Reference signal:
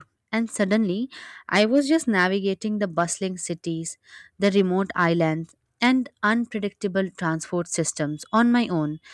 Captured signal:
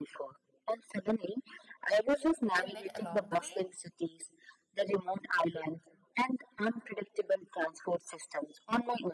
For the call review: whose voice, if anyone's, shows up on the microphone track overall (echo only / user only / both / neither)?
both